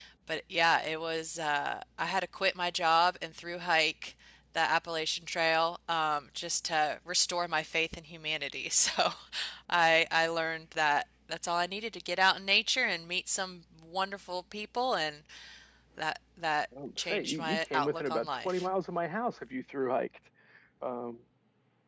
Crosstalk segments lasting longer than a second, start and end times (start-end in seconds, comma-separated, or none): 17.0-18.7